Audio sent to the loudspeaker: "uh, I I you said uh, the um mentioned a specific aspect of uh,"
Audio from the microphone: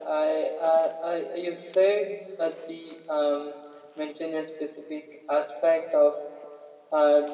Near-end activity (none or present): none